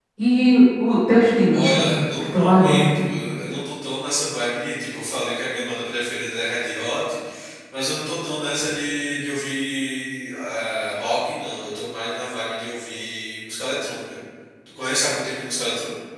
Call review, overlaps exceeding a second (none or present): present